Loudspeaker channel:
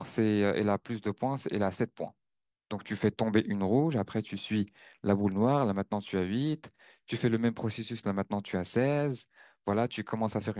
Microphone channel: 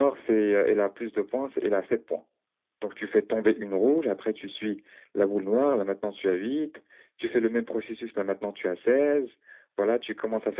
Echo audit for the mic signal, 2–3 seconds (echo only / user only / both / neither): echo only